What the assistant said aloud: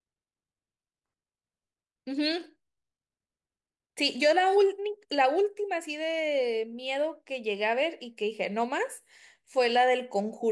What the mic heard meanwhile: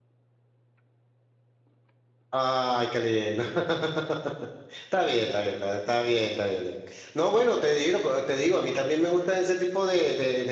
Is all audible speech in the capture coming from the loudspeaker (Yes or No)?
No